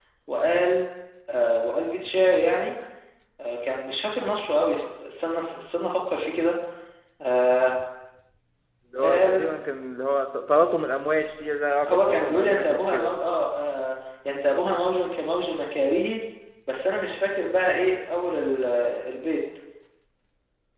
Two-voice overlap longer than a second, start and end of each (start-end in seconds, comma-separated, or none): 11.9-13.1